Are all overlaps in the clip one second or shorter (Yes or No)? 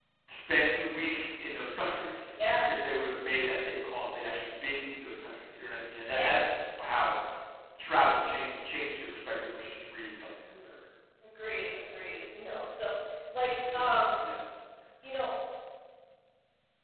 Yes